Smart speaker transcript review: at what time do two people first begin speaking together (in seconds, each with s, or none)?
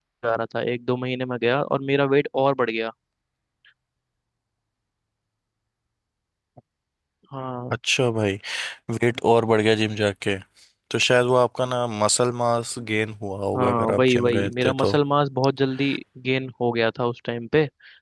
13.5 s